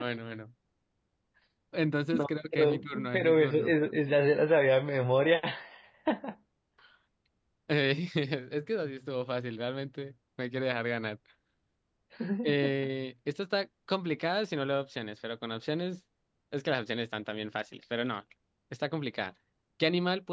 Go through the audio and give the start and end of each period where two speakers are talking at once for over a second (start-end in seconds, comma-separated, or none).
2.1-3.7